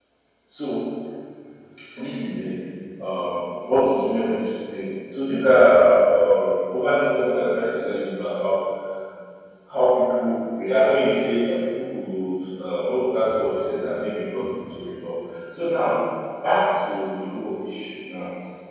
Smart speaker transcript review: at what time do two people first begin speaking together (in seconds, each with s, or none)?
none